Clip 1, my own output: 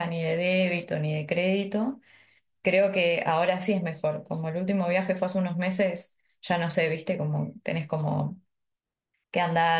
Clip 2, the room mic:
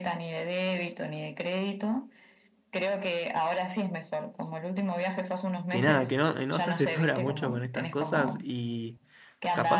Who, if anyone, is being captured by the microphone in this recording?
both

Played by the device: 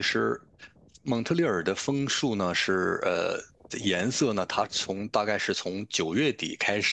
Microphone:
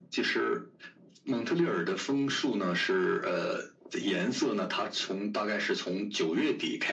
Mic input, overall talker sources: echo only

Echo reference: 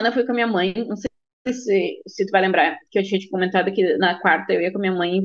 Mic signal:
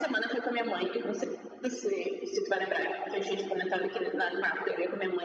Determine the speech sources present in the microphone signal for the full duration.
echo only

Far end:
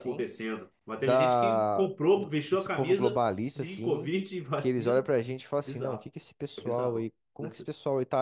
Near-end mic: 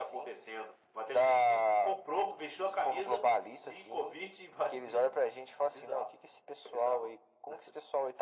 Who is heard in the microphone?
echo only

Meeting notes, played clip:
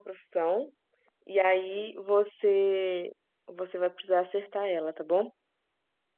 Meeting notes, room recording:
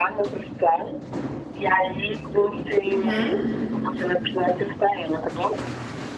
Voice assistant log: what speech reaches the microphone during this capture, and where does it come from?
both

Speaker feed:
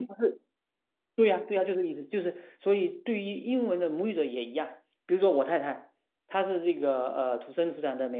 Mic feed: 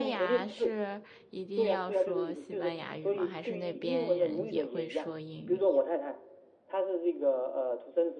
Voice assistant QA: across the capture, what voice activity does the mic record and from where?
both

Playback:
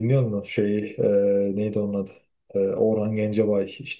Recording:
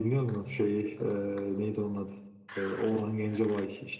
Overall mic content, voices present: echo only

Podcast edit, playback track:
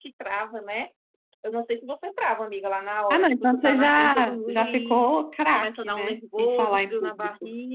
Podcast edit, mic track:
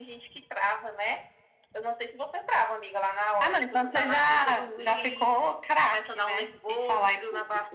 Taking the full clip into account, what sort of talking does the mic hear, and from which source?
echo only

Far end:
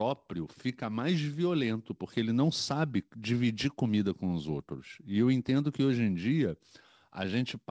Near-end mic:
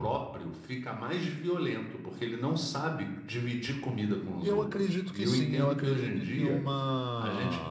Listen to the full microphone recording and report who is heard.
both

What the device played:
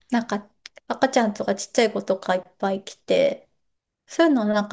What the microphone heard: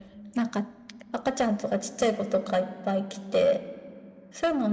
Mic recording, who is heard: echo only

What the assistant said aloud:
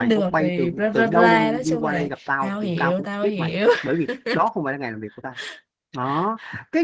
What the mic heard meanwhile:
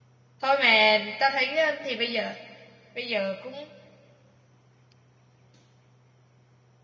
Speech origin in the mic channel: user only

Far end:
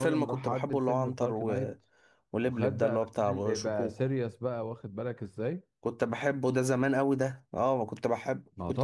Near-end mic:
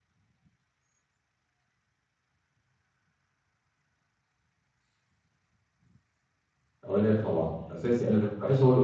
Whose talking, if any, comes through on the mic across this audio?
user only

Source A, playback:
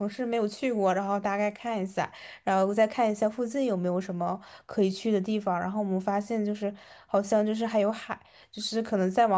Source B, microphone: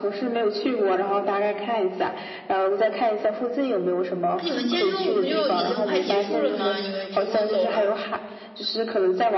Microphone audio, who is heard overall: both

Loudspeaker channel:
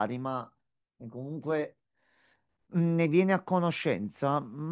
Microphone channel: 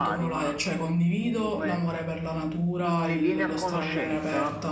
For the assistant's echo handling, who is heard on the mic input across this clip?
both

